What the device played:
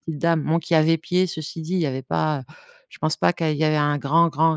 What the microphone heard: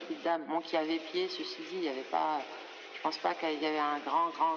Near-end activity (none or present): none